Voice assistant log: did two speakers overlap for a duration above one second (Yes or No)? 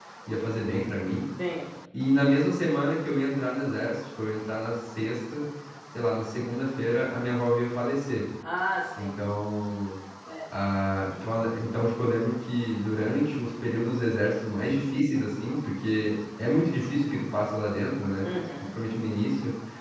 No